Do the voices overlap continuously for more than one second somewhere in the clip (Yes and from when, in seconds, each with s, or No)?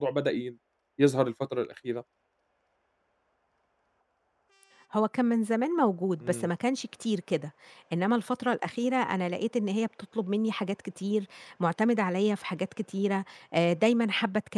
No